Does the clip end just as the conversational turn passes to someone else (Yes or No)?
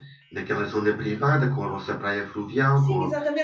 Yes